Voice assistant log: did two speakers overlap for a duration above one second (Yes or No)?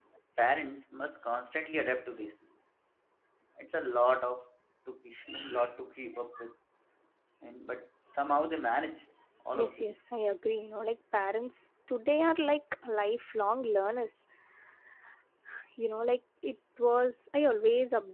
No